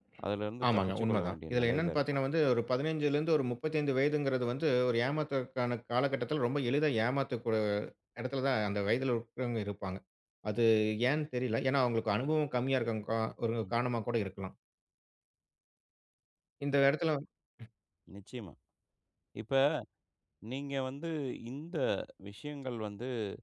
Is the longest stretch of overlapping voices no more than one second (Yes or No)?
No